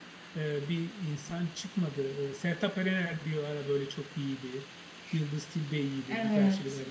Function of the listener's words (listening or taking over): listening